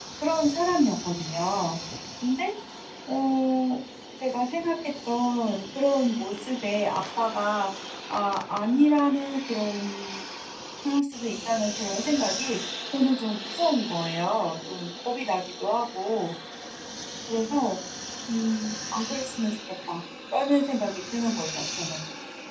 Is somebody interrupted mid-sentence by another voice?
No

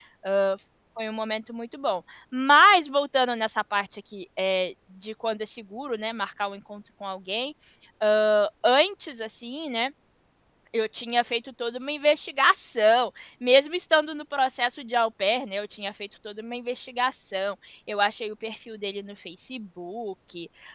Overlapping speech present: No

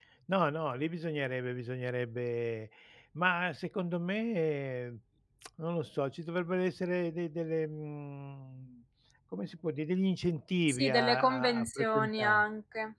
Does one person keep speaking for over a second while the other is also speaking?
Yes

